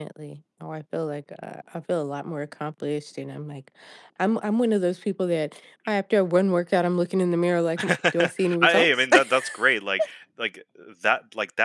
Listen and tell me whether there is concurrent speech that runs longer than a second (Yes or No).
Yes